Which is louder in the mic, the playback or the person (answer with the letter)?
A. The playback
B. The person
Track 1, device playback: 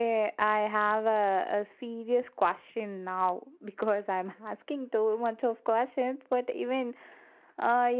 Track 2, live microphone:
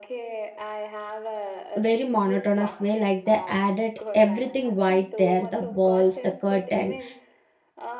B